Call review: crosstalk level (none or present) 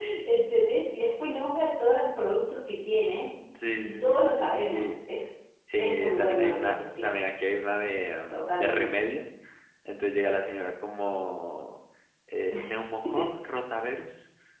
present